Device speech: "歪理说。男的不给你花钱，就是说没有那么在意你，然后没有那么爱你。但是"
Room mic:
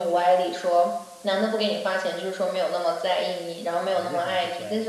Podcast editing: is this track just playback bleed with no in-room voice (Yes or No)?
No